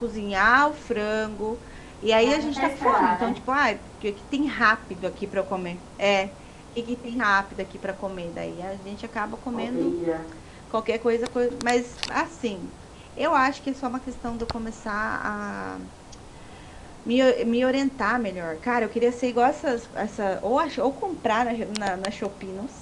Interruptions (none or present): present